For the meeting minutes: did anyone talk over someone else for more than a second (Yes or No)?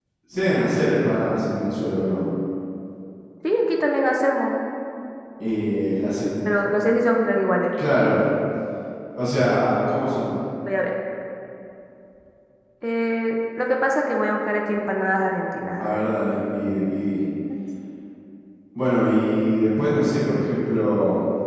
No